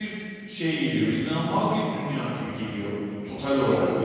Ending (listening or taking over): taking over